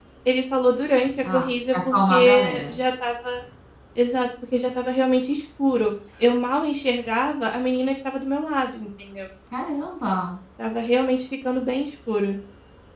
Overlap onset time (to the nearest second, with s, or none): 1 s